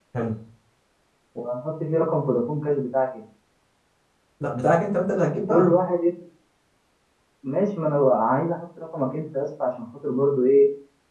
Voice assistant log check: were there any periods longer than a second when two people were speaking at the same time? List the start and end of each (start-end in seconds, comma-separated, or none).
none